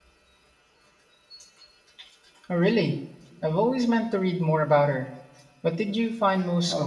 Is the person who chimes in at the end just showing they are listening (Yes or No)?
No